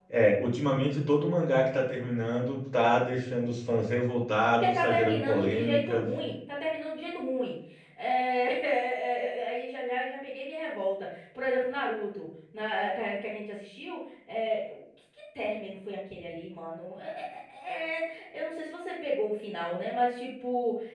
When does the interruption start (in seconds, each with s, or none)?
4.6 s